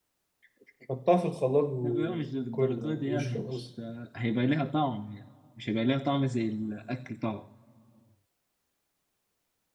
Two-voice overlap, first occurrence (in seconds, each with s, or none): 1.8 s